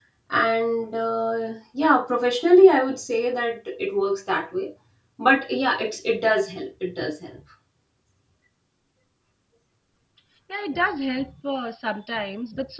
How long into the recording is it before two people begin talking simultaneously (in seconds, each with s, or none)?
none